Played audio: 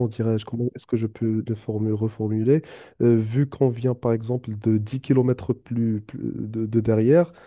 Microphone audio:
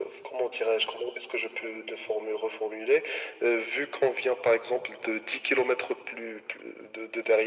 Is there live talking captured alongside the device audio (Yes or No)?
No